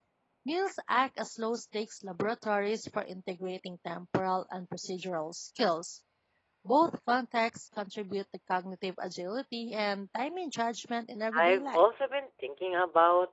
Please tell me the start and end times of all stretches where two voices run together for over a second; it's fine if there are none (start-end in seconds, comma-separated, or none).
none